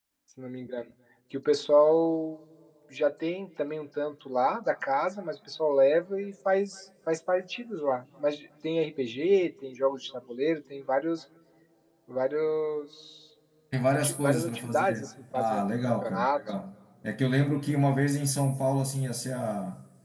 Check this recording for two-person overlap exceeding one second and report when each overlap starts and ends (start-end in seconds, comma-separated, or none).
13.9-16.4